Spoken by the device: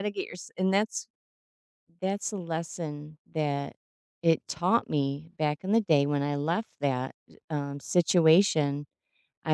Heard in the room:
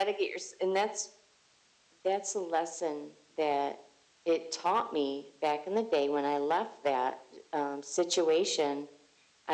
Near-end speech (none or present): none